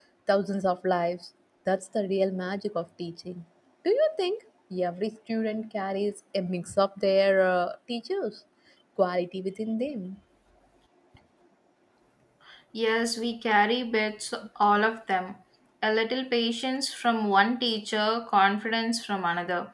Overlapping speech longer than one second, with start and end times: none

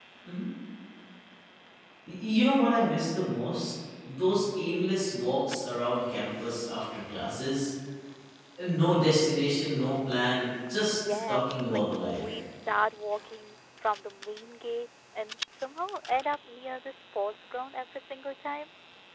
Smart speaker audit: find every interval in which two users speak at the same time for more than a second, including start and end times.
10.9-12.2

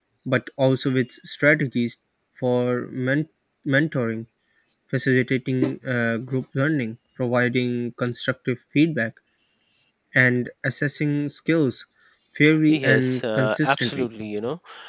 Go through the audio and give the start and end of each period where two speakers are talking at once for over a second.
12.7-14.1

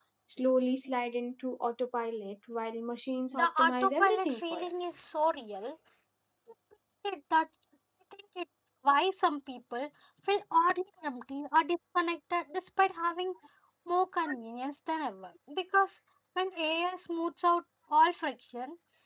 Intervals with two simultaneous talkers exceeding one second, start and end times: 3.3-4.7

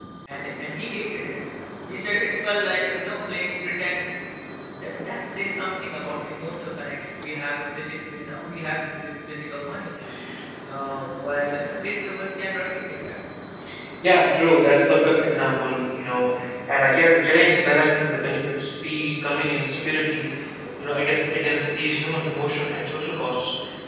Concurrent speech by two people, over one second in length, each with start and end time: none

